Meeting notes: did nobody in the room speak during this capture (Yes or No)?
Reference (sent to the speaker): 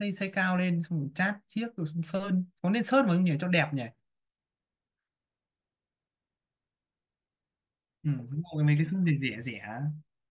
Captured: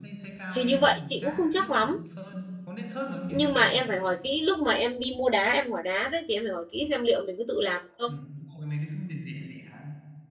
No